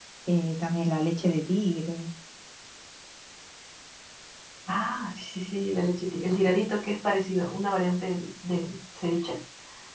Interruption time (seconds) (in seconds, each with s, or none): none